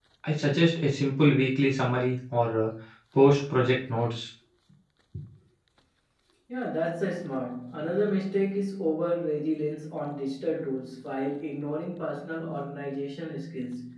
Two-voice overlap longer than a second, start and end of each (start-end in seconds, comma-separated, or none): none